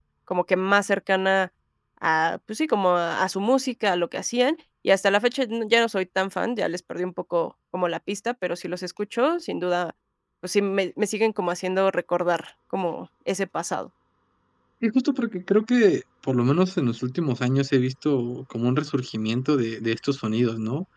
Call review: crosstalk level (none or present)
none